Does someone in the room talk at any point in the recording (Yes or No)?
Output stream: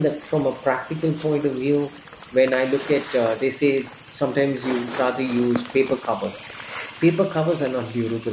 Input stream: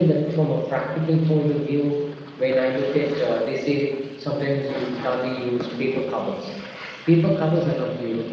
No